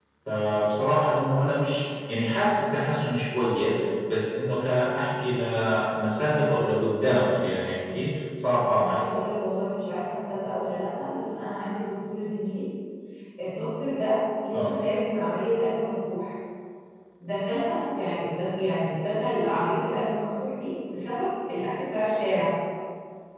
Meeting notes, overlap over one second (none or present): none